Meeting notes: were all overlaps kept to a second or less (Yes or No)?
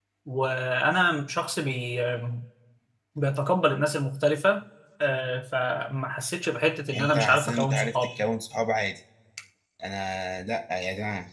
No